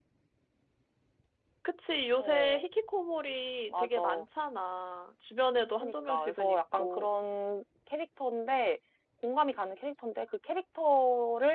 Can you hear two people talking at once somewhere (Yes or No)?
Yes